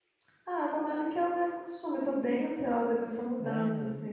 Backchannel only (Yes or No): Yes